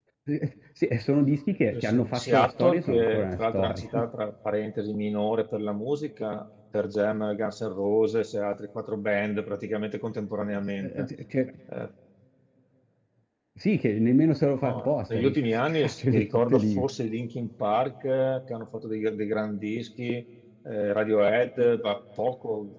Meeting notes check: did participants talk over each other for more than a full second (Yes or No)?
Yes